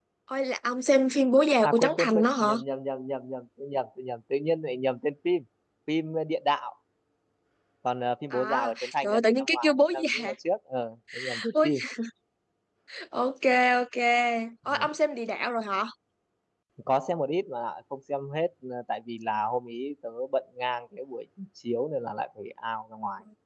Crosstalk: present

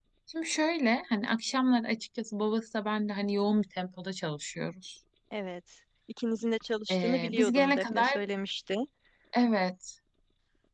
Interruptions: present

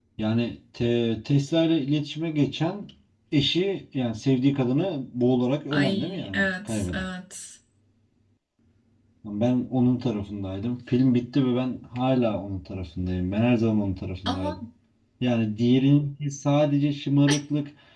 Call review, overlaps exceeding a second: present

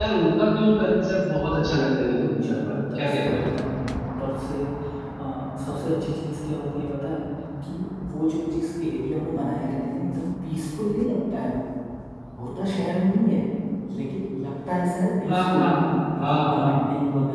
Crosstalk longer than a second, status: present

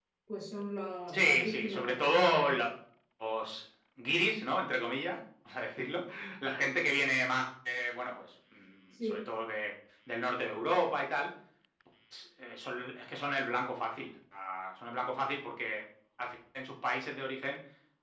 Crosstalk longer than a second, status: present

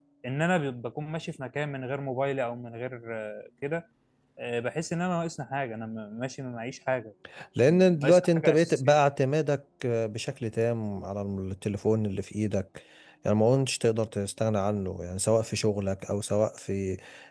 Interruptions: present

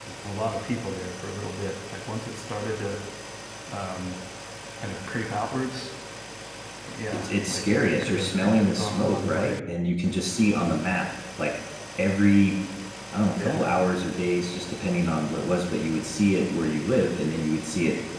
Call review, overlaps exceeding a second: present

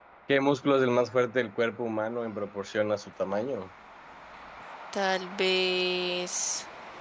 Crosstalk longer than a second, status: none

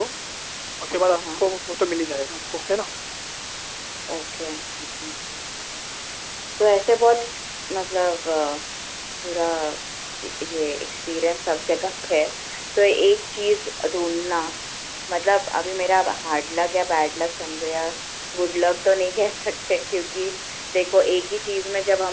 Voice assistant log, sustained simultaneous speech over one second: none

